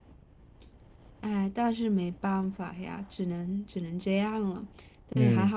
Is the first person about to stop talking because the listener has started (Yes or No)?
Yes